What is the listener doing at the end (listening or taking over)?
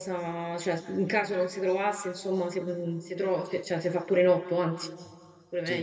taking over